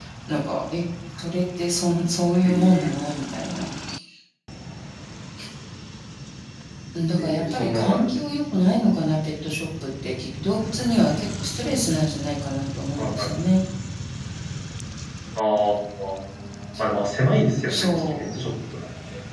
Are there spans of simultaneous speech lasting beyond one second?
Yes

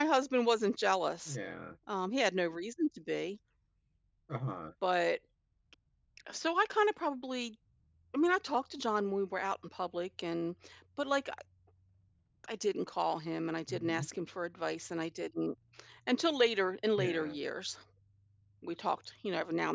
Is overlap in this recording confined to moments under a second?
Yes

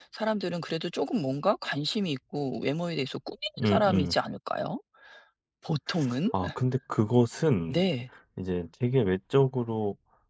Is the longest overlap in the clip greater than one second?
No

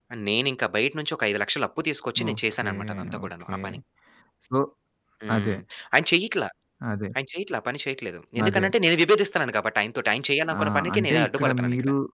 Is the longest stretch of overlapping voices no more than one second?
No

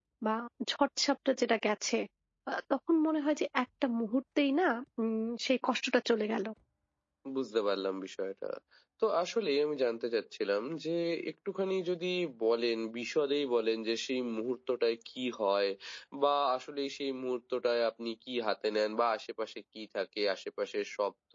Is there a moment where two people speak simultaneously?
No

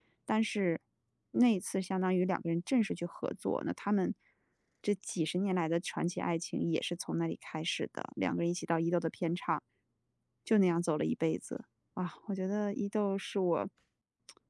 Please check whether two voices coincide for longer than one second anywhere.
No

